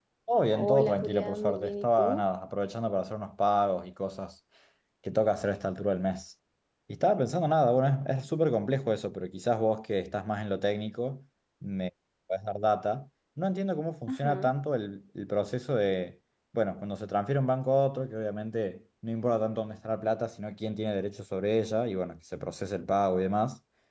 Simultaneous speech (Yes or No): Yes